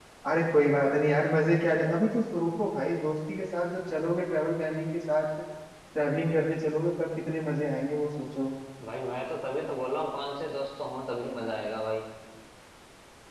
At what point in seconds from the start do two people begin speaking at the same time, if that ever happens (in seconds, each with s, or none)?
none